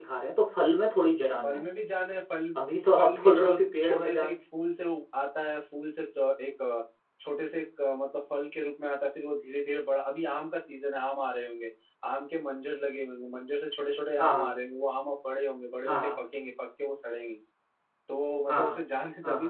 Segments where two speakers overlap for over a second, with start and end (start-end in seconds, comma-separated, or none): 3.0-4.3